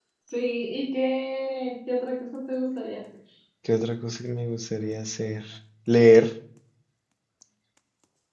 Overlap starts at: none

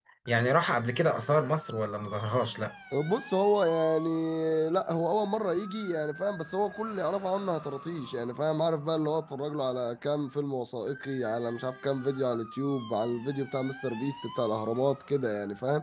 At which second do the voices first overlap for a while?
none

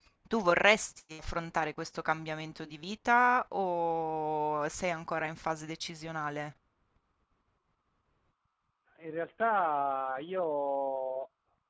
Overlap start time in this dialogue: none

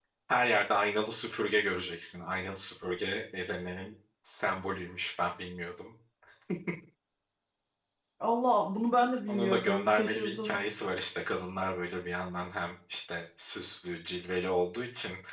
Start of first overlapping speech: 9.3 s

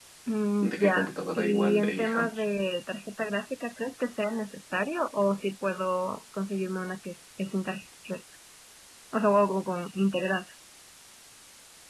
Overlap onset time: 0.6 s

